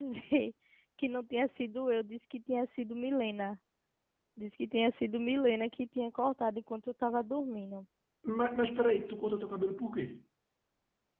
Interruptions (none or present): none